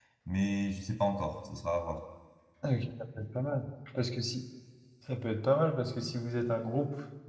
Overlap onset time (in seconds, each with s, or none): none